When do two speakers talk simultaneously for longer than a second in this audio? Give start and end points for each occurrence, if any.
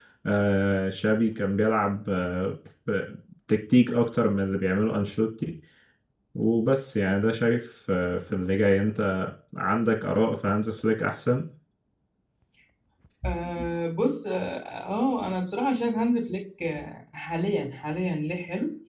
none

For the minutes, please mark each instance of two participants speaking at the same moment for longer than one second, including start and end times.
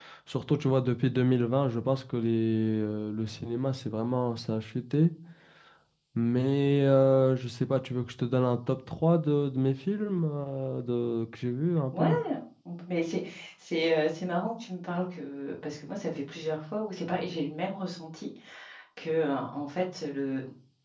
none

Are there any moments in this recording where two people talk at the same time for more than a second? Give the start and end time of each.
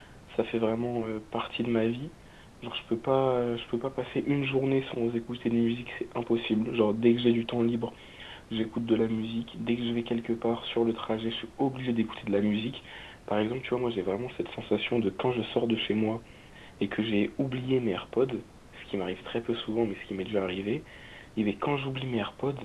none

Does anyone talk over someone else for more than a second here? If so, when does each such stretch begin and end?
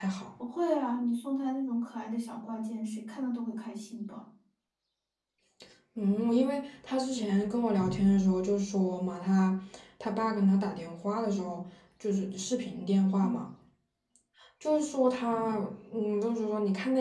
none

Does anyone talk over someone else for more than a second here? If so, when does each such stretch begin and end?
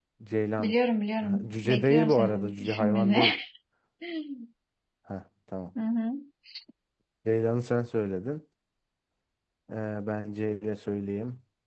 1.2-3.2

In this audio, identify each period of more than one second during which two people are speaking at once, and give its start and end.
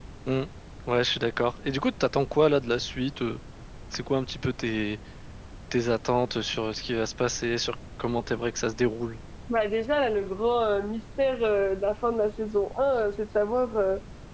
none

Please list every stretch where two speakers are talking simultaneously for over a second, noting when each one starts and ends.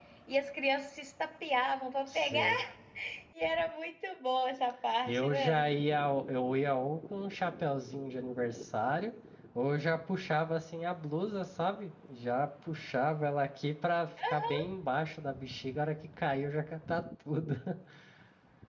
none

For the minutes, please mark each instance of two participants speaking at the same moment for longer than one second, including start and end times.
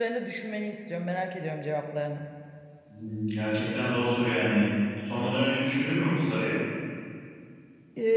none

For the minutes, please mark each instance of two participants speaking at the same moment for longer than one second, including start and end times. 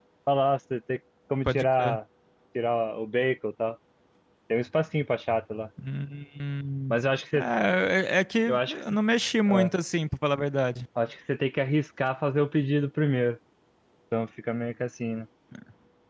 none

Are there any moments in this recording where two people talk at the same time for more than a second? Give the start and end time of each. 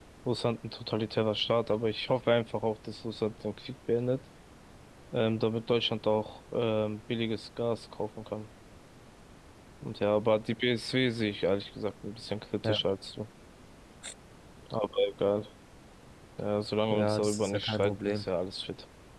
16.9-18.3

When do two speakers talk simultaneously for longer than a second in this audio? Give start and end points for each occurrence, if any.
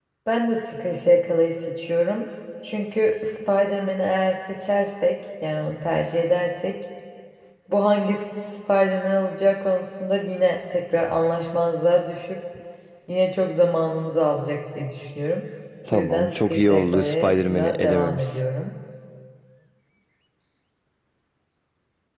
15.9-18.2

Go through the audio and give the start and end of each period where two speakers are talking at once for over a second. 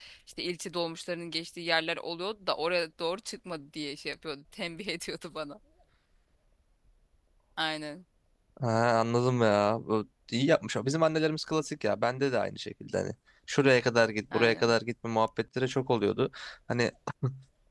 none

